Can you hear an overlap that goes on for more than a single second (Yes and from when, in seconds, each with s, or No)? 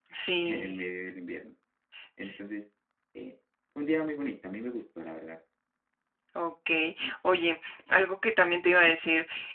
No